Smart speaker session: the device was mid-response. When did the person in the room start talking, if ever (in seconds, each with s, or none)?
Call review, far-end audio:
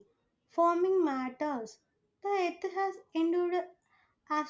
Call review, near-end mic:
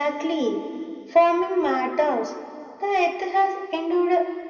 none